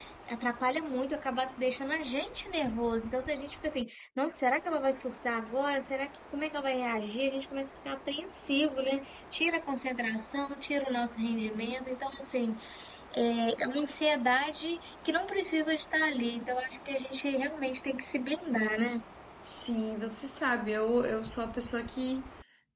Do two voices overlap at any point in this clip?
No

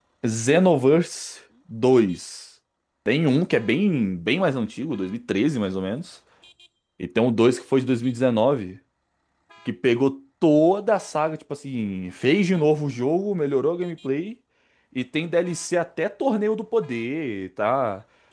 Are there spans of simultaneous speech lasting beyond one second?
No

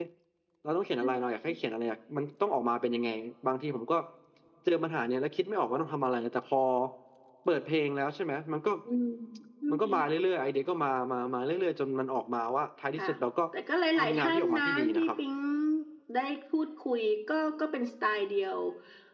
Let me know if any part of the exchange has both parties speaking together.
Yes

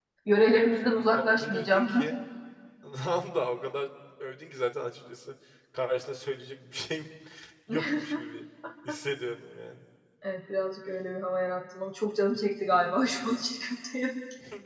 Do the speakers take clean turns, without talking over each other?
No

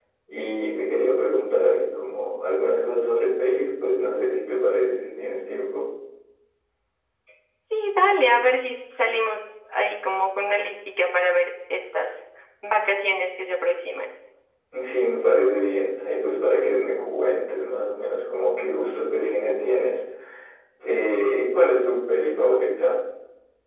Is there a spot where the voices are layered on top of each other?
No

